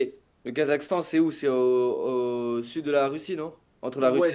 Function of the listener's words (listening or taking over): taking over